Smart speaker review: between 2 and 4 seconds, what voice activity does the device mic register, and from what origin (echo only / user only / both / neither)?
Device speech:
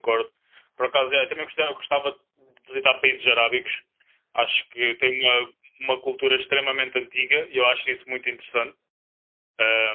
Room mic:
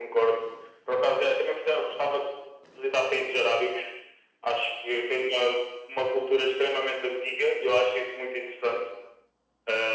echo only